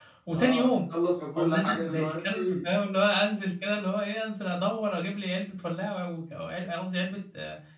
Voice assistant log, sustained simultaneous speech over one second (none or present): present